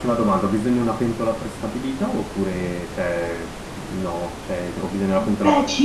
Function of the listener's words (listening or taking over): taking over